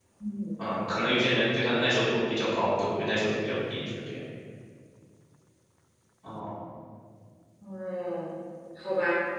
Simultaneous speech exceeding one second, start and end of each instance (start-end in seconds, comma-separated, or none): none